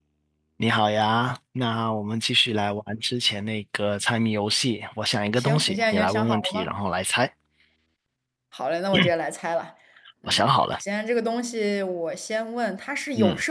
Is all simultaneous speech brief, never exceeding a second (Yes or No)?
No